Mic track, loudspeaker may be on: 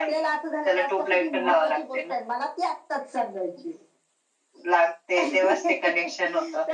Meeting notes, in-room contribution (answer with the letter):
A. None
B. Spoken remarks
B